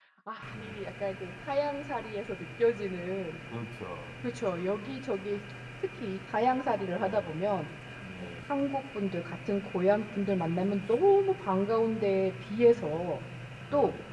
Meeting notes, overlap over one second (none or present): none